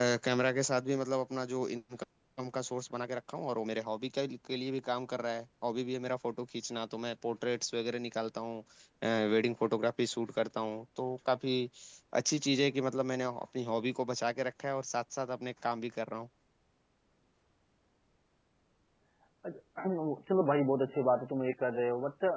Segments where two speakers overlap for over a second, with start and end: none

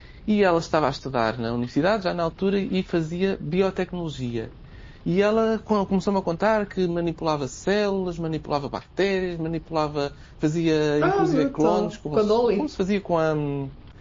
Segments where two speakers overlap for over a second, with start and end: 11.1-12.6

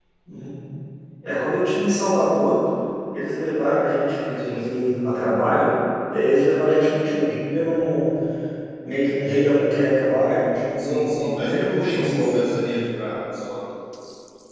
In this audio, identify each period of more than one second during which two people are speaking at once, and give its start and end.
10.8-12.5

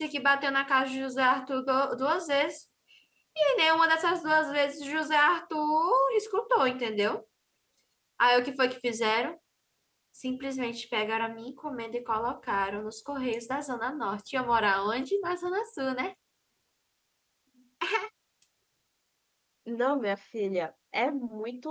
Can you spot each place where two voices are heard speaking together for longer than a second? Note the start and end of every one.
none

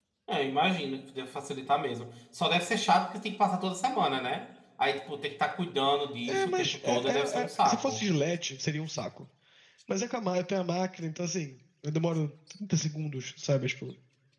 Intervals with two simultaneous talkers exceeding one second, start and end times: 6.3-8.0

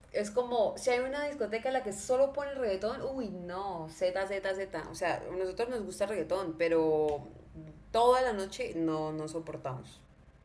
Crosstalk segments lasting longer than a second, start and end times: none

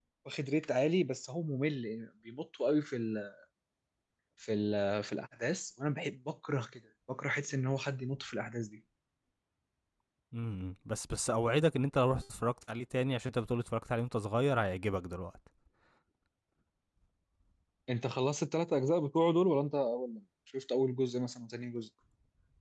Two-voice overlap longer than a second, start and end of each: none

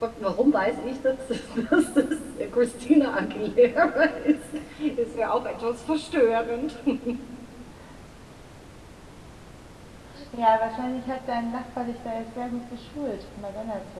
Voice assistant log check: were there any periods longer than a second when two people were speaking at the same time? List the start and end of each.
none

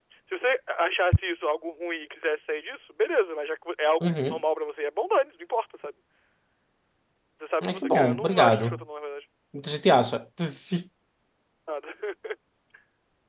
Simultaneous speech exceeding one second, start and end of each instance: 7.6-8.8

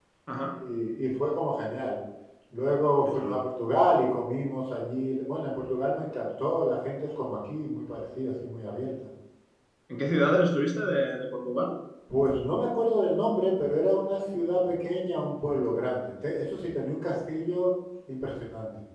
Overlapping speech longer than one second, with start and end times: none

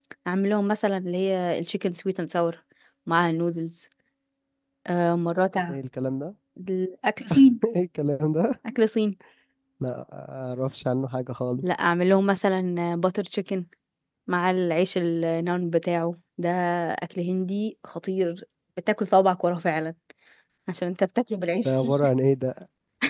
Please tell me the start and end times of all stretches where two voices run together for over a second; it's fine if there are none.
none

